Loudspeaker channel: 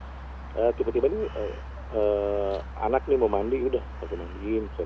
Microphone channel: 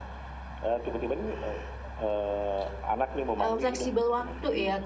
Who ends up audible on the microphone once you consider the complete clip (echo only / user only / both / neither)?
both